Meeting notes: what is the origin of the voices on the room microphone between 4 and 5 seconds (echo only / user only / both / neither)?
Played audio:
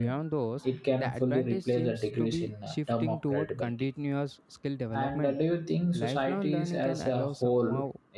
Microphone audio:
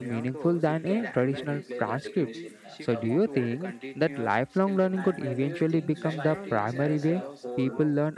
both